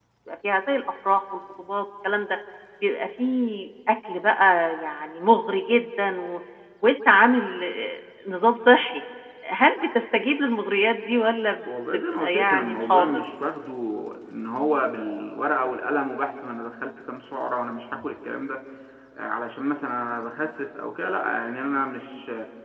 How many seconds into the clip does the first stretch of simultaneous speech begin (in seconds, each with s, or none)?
11.9 s